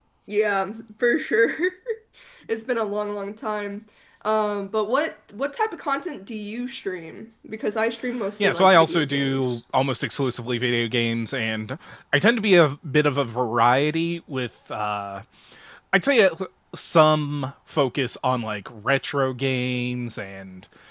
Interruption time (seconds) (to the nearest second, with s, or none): 8 s